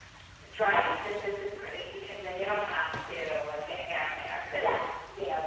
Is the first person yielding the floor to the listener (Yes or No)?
No